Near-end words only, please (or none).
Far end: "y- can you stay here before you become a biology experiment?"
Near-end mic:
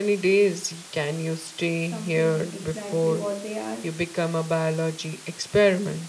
something exactly what they are